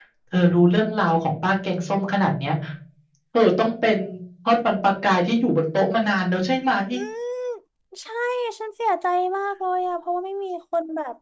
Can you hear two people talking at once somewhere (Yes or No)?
No